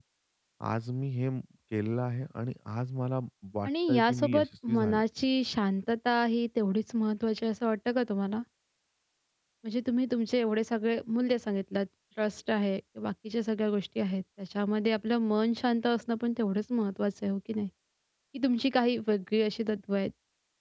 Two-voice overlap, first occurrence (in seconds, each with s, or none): 3.6 s